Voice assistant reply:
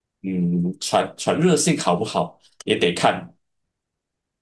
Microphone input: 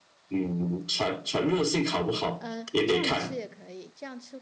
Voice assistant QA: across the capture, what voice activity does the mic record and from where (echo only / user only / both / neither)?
both